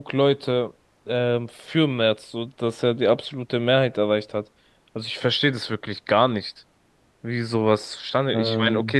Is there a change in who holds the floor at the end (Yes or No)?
No